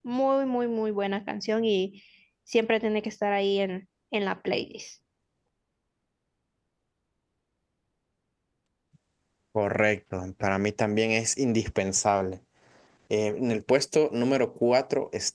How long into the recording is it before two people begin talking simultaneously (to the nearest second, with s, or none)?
none